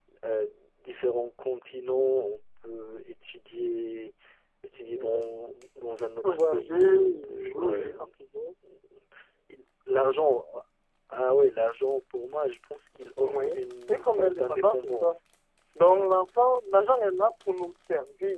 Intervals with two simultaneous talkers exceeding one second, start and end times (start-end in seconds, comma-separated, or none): 6.2-8.1, 13.9-15.1